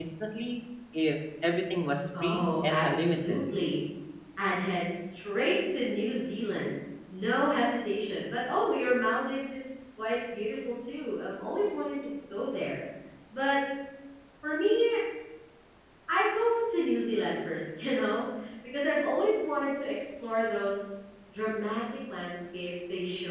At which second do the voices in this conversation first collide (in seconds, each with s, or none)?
2.1 s